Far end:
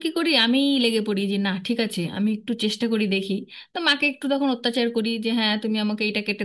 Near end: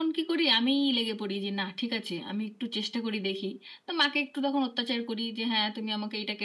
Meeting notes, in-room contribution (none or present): none